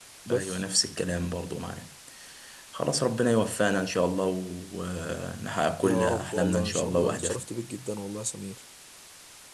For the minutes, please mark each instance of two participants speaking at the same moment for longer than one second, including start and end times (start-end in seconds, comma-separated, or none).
5.8-7.5